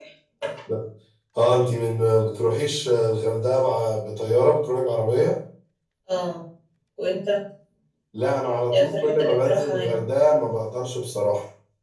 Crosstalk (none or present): present